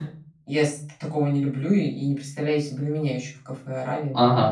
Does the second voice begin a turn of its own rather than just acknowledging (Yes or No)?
Yes